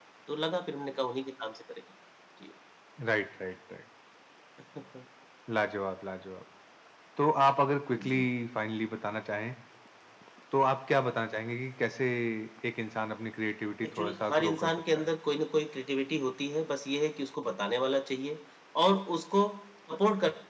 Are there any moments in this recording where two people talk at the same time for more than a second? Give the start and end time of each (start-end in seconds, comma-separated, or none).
13.8-15.1